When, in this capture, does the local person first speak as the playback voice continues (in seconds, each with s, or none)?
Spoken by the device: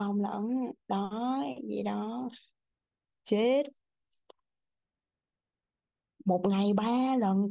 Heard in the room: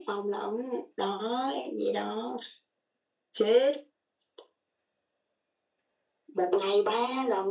none